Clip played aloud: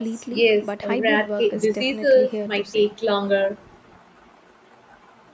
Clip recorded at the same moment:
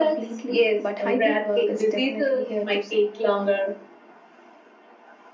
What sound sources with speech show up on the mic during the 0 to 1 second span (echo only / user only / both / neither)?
echo only